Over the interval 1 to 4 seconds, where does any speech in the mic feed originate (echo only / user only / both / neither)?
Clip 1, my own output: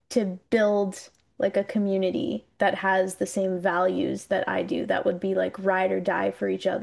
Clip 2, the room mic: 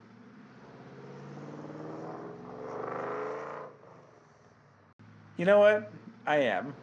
neither